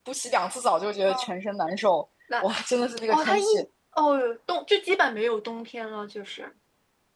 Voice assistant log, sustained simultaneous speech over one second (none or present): none